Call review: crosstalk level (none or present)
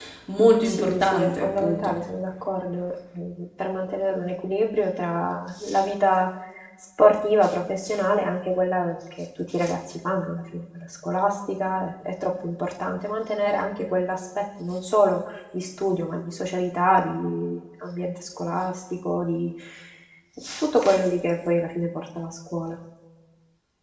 present